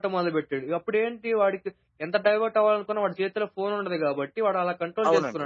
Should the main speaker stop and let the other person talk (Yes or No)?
Yes